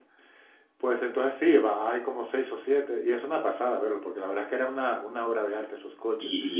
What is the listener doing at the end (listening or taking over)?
taking over